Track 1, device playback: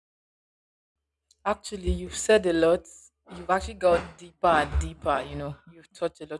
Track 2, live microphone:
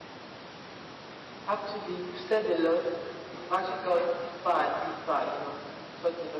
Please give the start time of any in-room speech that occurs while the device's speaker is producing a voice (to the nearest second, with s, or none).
none